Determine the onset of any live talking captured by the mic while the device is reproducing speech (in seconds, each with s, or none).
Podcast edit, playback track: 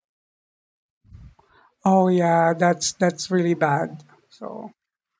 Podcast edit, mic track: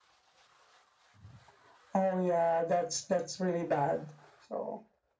none